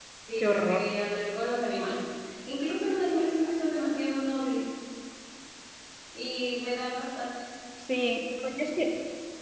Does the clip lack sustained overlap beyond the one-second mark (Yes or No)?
Yes